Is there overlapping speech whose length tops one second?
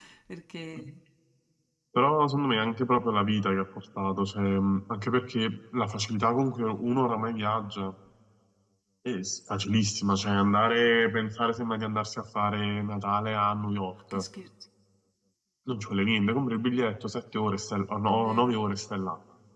No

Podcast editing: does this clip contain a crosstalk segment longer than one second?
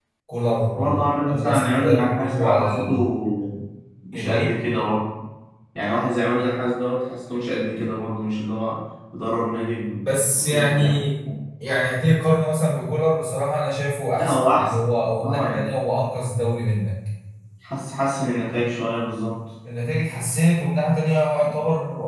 Yes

